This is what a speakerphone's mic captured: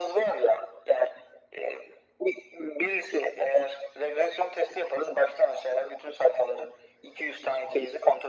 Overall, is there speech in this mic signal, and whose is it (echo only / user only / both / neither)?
echo only